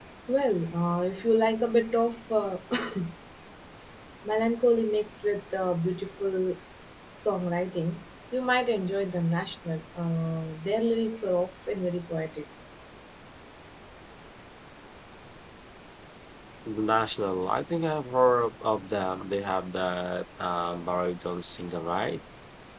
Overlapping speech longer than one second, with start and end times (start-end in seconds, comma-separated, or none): none